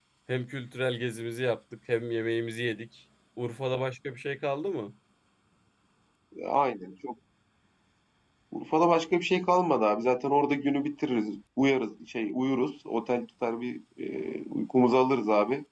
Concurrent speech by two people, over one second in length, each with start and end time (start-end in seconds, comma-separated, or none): none